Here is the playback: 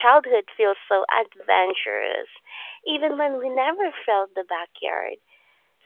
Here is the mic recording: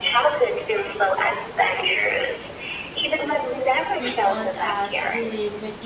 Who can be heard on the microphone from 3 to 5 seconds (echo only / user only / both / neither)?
both